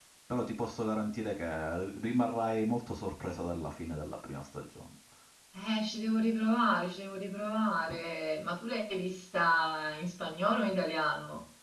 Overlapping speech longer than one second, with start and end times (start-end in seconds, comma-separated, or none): none